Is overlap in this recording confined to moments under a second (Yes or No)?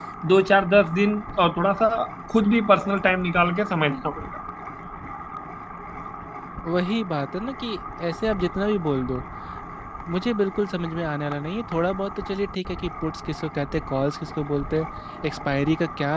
Yes